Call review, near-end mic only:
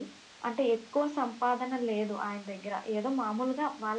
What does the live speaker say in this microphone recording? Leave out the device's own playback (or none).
none